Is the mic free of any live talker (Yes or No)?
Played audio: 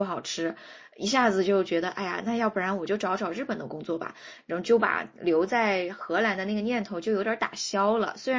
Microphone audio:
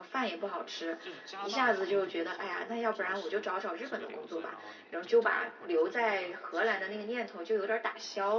No